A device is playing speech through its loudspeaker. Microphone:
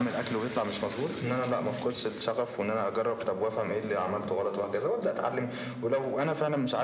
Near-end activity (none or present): none